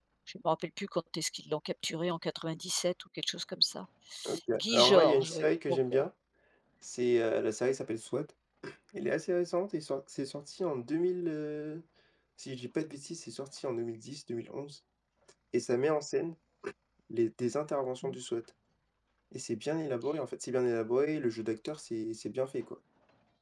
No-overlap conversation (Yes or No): No